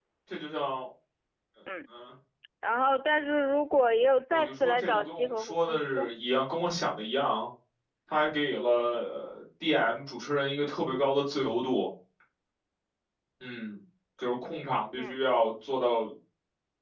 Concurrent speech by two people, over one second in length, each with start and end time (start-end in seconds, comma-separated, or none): 4.3-6.1